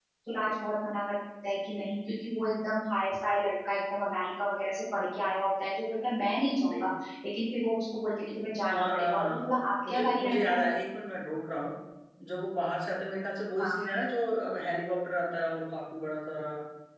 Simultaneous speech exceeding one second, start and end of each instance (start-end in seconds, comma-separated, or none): 8.7-10.6